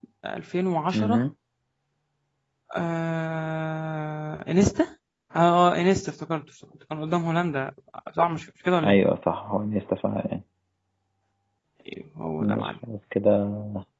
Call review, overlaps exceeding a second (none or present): none